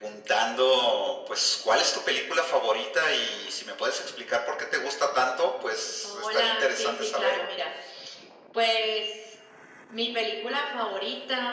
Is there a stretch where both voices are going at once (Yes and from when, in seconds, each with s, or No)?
Yes, from 6.0 s